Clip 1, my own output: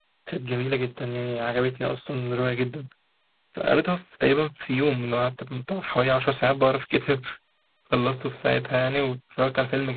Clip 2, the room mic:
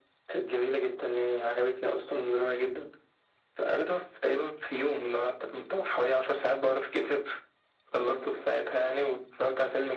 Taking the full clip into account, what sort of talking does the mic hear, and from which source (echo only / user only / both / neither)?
echo only